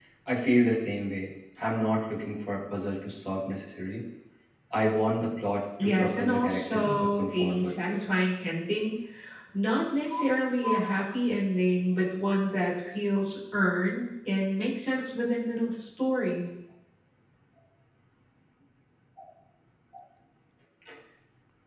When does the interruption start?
5.8 s

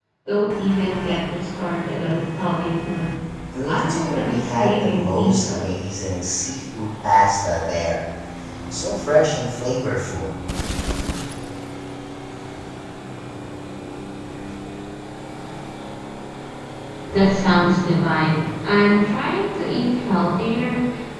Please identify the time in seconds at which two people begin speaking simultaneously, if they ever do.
3.6 s

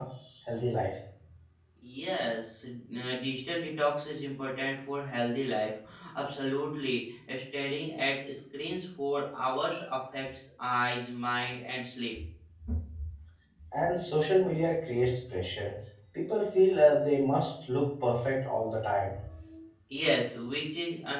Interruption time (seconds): none

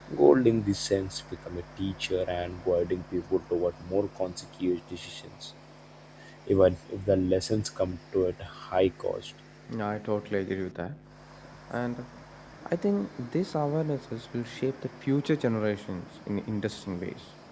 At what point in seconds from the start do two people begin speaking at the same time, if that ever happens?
none

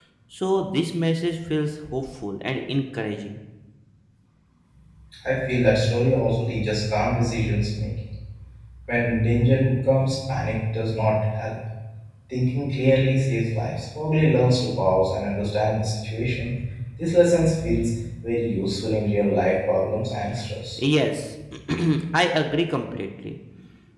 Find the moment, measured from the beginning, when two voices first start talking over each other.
none

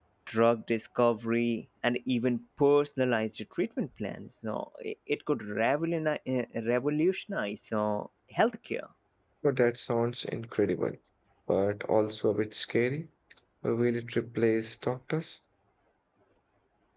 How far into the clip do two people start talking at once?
none

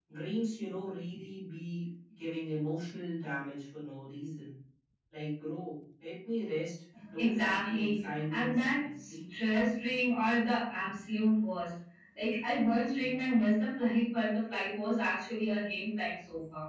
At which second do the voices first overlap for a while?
6.9 s

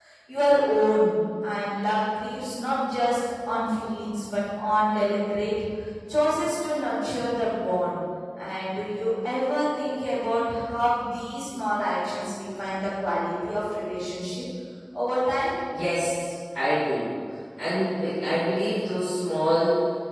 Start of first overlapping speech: none

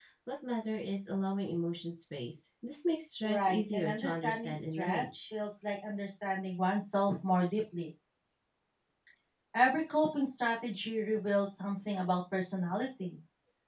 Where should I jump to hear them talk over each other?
3.2 s

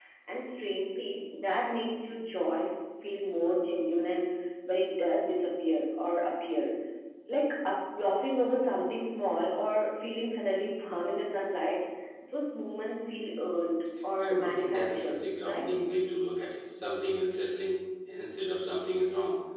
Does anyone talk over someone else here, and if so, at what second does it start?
14.2 s

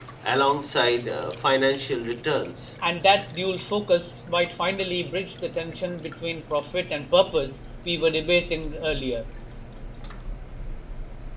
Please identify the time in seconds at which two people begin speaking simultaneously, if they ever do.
none

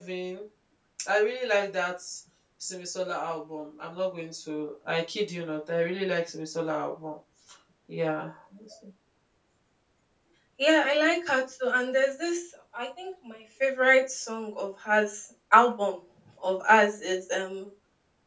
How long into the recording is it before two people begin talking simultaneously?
none

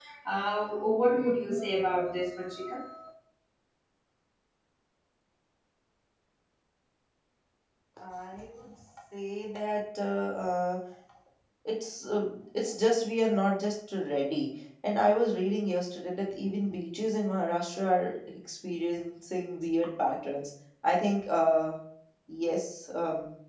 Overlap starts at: none

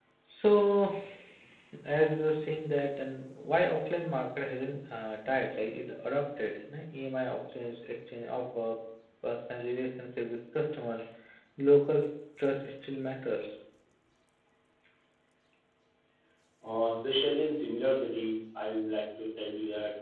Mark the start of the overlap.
none

